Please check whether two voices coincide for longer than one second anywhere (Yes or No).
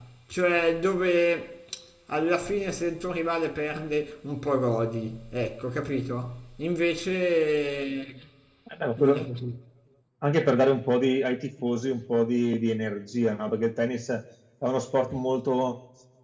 No